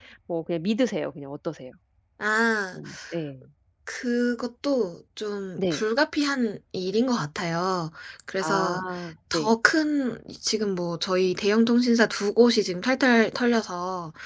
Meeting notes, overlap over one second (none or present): none